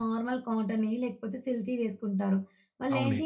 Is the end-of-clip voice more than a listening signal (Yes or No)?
No